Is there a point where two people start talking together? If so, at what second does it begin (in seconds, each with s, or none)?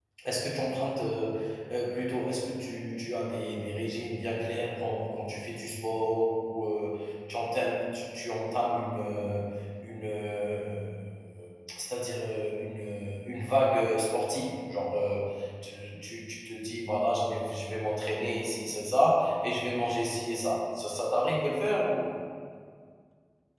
none